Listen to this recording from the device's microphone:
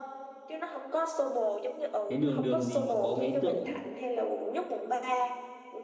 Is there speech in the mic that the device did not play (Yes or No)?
Yes